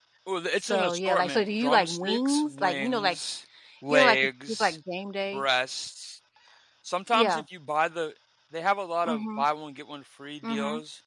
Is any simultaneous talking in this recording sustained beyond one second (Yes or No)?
Yes